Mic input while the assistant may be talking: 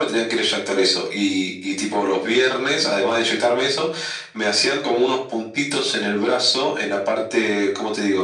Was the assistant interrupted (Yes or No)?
No